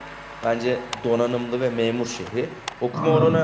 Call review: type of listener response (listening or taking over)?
listening